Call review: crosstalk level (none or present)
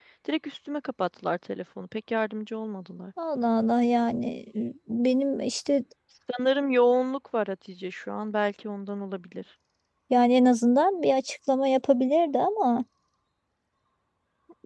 none